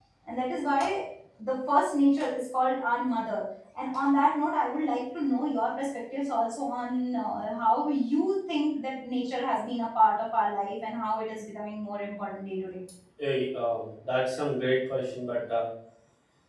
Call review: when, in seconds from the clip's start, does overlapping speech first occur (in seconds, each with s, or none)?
none